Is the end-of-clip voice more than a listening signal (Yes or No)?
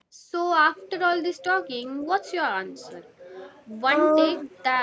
No